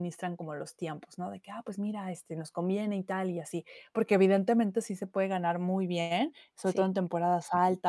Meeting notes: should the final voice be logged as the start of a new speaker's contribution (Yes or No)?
No